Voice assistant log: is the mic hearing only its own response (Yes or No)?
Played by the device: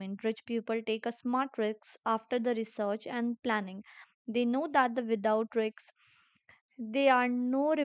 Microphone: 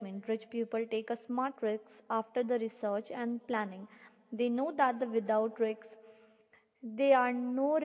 Yes